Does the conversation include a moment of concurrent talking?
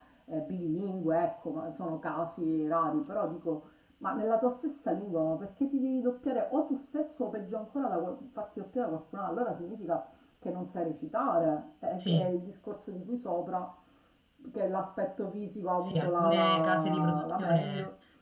Yes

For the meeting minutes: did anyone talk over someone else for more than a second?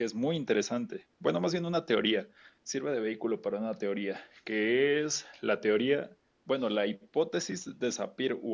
No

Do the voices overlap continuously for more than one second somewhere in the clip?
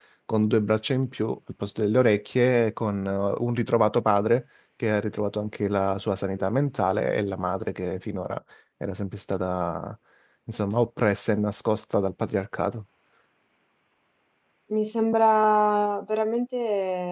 No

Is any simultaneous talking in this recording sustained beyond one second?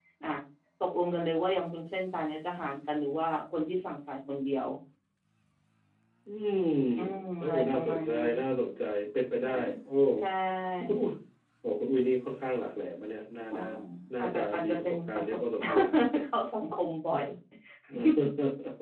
Yes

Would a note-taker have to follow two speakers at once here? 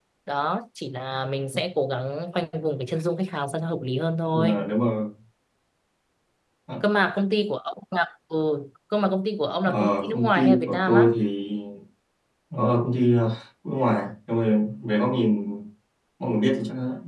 Yes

